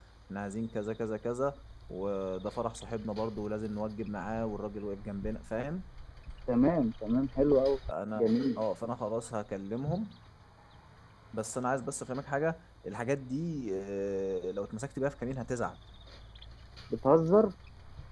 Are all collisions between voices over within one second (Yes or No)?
Yes